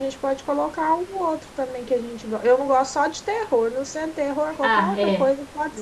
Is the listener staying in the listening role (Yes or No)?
No